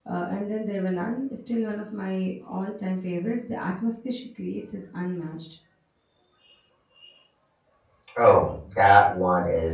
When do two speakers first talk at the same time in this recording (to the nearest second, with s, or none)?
none